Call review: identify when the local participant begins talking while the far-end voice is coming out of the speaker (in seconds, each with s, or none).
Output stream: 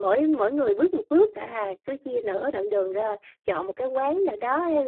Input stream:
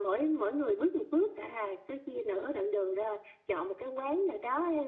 none